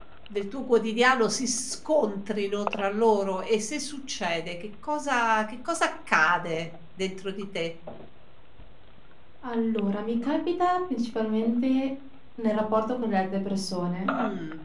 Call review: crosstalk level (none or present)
none